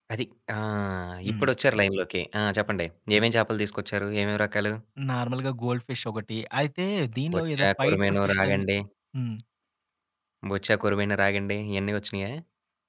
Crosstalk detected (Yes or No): Yes